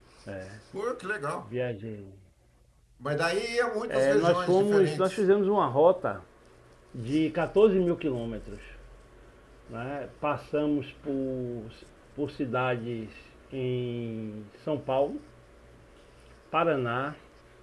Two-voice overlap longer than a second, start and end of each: 3.9-5.2

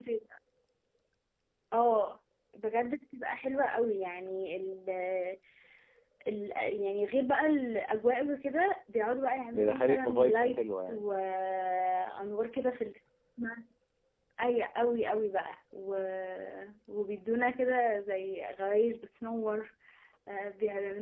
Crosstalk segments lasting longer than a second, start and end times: 9.5-11.0

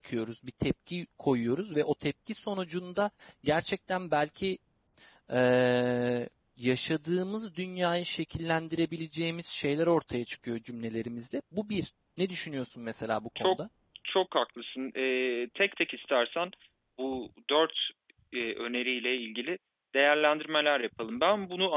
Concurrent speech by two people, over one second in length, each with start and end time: none

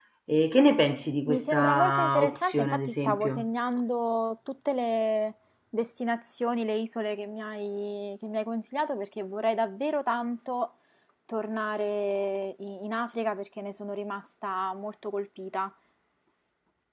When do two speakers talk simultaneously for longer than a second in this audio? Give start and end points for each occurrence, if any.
1.3-3.5

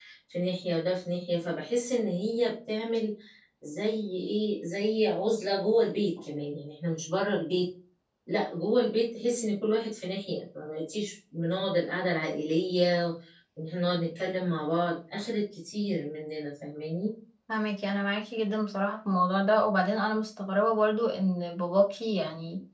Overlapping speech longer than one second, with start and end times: none

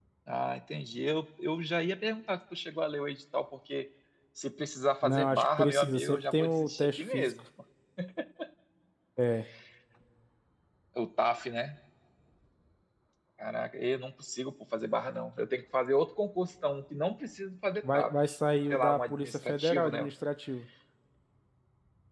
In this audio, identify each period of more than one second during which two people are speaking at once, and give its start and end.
5.0-7.4, 18.7-20.1

